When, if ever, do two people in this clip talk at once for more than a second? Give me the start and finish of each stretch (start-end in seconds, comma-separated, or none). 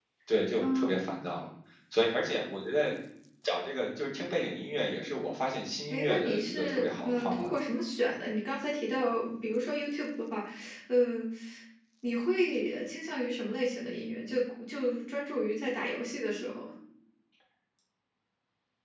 5.9-7.5